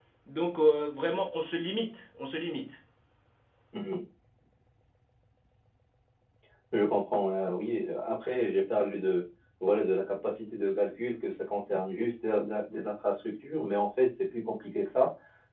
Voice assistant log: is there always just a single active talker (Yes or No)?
Yes